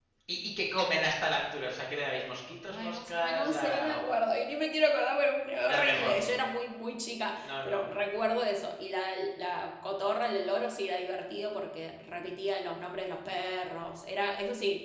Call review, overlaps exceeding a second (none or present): present